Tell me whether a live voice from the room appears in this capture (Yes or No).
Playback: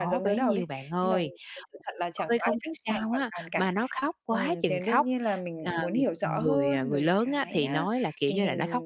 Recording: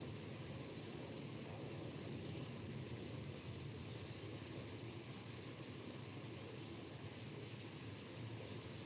No